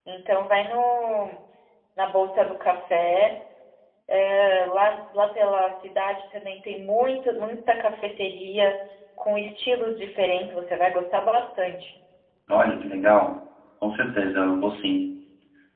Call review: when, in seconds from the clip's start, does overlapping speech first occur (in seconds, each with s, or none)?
none